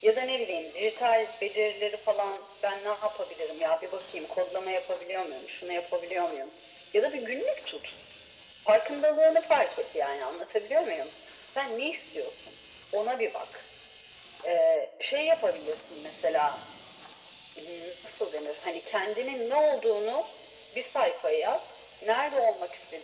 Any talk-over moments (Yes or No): No